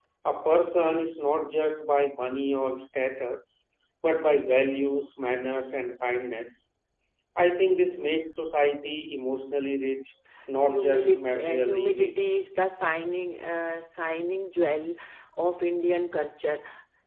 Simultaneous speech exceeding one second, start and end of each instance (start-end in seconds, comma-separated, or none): 10.7-12.4